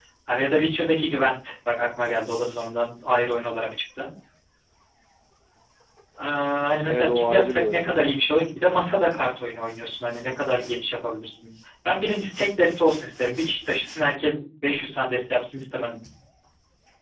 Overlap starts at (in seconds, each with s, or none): 6.8 s